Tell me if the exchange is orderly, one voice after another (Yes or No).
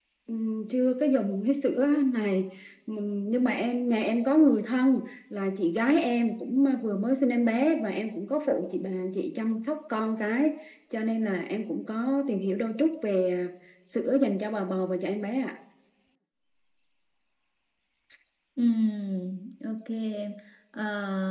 Yes